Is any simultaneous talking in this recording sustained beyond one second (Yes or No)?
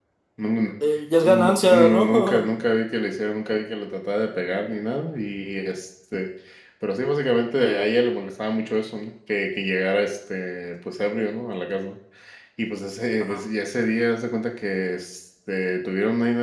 Yes